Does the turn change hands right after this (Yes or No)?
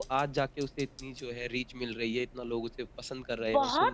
Yes